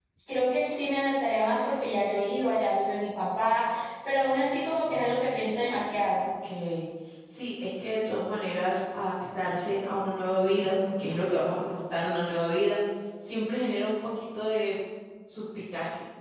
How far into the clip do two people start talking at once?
none

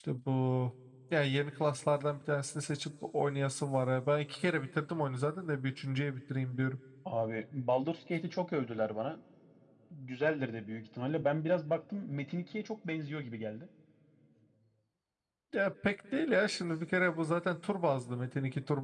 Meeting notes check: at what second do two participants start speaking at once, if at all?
none

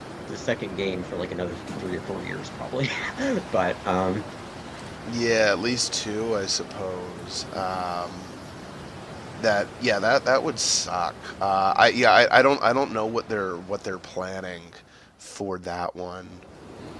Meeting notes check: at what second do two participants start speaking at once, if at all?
none

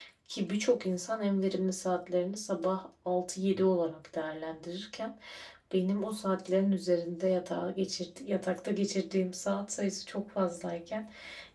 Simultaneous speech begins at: none

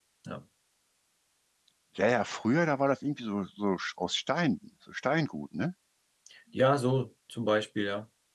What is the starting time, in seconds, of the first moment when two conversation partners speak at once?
none

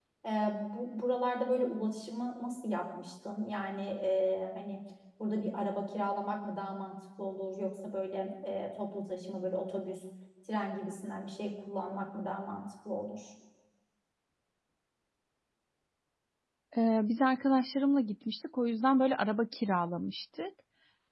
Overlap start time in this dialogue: none

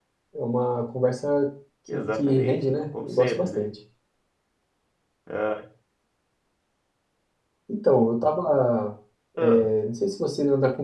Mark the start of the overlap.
1.9 s

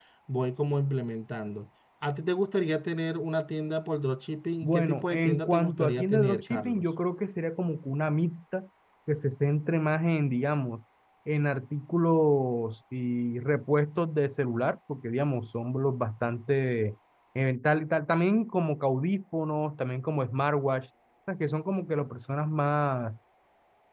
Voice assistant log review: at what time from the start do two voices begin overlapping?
4.6 s

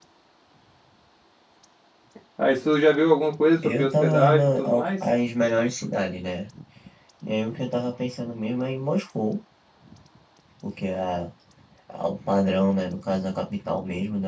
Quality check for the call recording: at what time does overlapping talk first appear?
3.5 s

